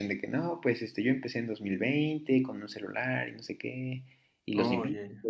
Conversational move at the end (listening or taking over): listening